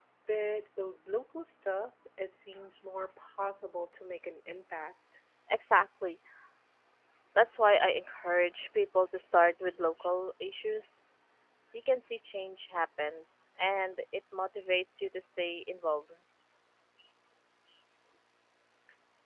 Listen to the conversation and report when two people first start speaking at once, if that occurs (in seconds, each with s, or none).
none